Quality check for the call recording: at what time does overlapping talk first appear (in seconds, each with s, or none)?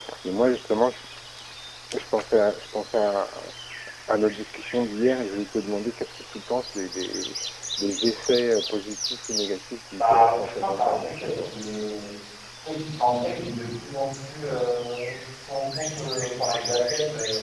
10.0 s